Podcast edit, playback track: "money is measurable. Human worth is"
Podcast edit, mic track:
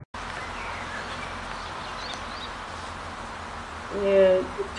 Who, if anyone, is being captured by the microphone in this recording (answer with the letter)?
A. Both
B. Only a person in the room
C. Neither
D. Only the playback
B